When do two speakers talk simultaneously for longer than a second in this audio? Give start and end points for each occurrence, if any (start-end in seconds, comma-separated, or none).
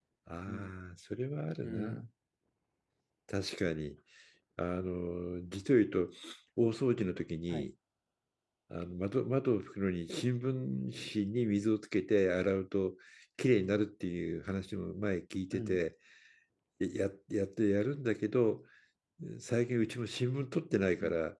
none